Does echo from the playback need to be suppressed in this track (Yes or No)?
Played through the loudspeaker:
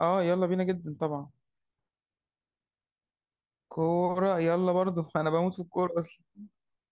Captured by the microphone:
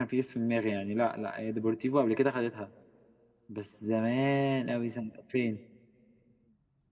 No